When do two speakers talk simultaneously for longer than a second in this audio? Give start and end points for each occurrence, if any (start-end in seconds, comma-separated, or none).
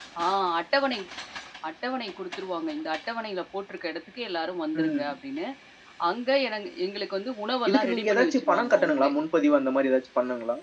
7.7-9.1